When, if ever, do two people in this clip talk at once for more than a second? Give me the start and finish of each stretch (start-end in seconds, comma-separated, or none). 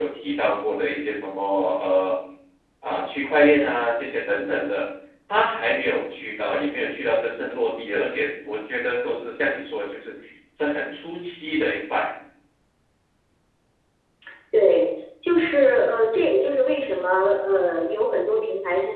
none